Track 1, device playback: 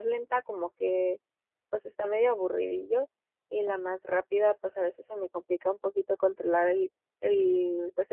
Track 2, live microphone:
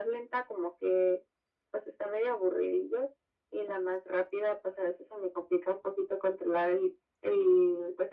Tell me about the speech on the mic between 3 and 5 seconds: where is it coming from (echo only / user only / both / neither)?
echo only